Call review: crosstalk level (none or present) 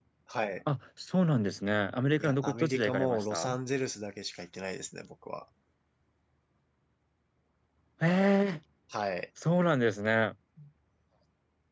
present